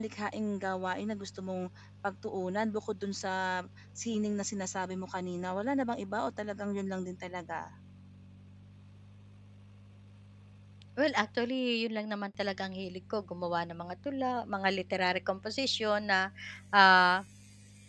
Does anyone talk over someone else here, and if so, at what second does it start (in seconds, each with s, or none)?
none